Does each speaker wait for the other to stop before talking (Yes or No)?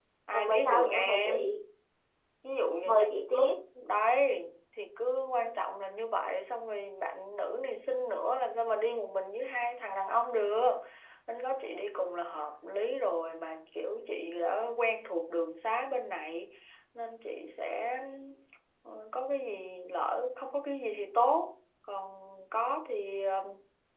No